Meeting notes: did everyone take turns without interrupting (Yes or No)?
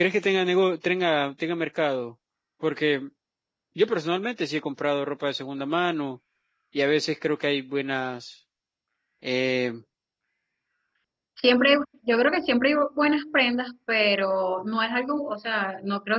Yes